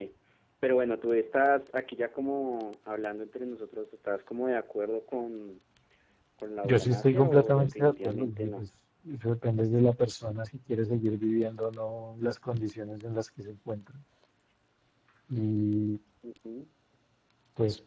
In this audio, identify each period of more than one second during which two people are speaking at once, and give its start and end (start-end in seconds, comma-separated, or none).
6.6-8.6